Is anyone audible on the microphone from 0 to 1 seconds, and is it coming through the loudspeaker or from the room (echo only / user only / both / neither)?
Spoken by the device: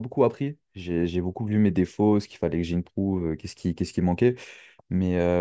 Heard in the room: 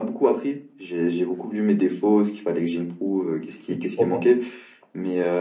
echo only